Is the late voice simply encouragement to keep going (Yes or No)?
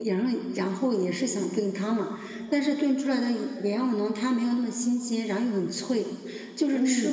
Yes